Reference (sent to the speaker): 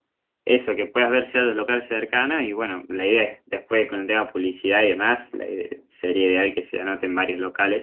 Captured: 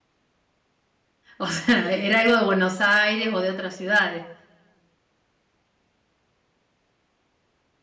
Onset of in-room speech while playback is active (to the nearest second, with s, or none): 1 s